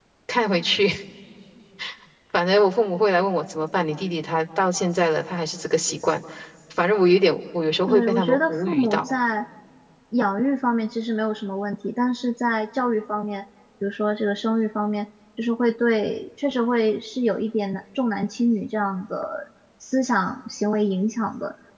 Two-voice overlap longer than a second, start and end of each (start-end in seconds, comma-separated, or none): 7.9-9.1